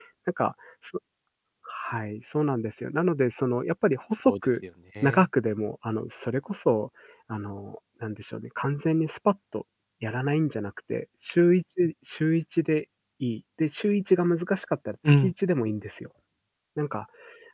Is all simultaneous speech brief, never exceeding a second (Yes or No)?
Yes